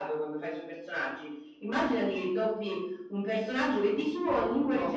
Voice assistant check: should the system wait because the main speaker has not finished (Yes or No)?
Yes